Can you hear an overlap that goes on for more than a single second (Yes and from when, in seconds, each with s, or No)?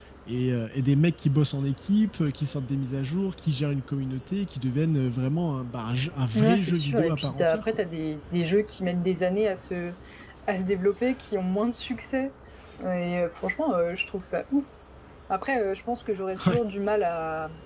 Yes, from 6.3 s